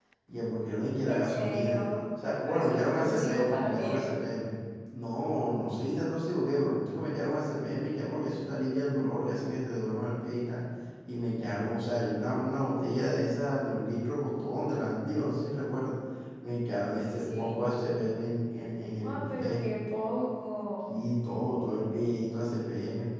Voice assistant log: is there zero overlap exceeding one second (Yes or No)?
No